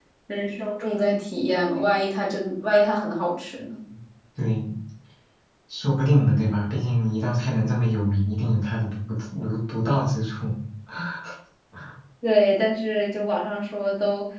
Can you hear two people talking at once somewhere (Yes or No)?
No